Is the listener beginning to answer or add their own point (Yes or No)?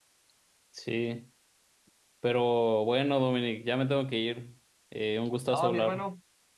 Yes